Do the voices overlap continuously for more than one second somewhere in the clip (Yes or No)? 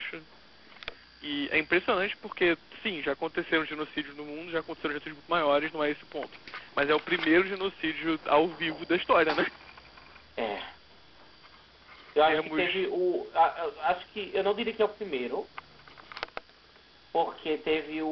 No